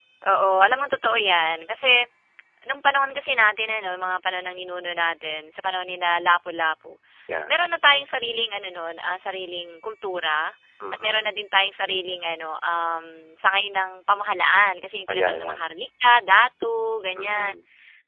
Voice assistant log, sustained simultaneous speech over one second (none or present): none